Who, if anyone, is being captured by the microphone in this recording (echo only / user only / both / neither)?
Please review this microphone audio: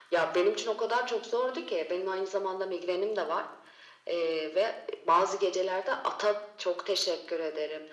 echo only